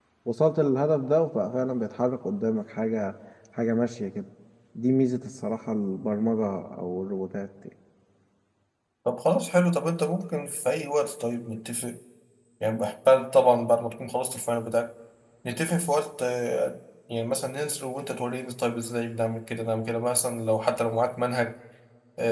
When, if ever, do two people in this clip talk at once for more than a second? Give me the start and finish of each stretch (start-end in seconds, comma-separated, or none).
none